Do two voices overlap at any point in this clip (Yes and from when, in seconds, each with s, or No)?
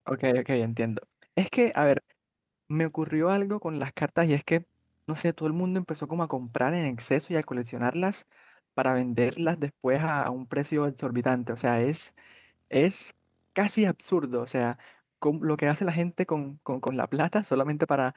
No